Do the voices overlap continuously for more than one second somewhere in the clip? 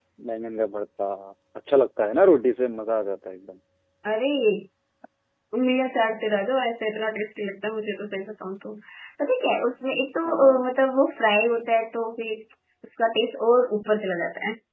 No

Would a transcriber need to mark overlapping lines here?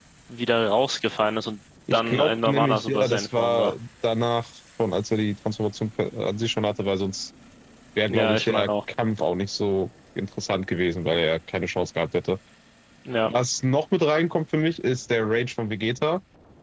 Yes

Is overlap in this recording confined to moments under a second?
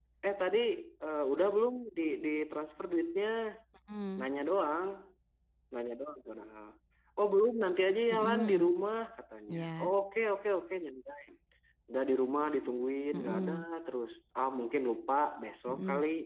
Yes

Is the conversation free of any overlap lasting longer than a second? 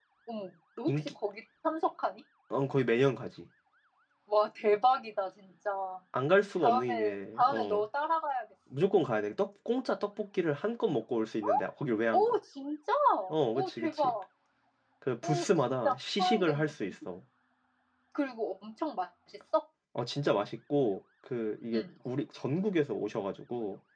No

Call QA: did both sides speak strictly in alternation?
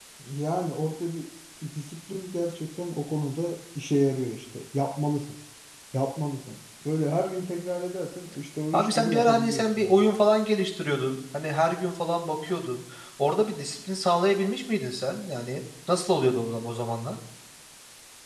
No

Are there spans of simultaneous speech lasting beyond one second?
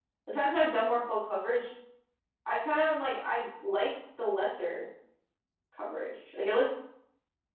No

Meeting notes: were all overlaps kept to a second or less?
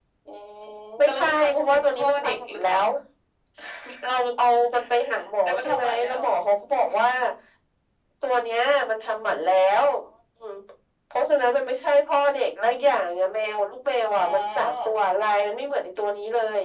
No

